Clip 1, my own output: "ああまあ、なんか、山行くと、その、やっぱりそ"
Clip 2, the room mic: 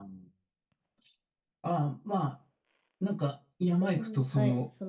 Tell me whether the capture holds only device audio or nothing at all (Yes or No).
No